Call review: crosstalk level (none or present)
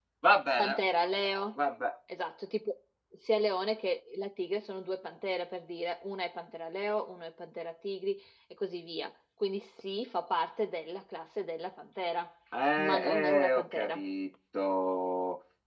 present